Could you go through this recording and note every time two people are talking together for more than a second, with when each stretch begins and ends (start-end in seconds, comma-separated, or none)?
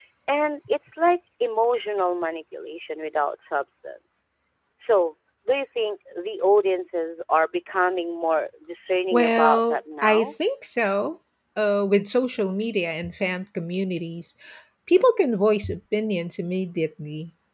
9.1-10.3